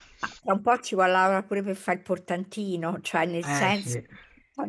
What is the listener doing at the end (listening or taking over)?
listening